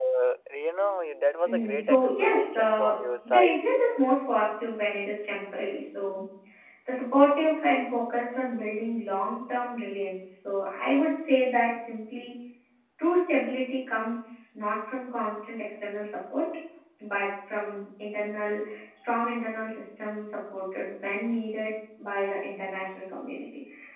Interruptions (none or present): present